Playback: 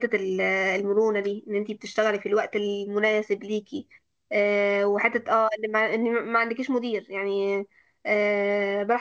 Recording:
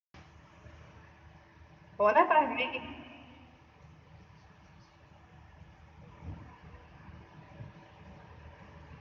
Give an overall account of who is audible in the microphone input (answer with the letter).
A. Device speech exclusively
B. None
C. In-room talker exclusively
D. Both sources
C